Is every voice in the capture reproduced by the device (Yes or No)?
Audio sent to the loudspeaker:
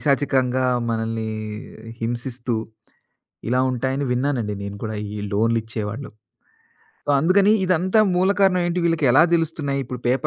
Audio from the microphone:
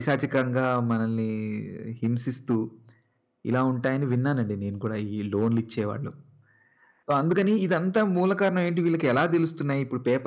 Yes